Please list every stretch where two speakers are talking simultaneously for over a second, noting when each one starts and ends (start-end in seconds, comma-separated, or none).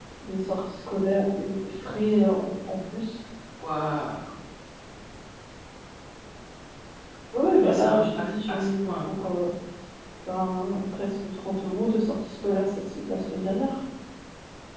7.6-9.2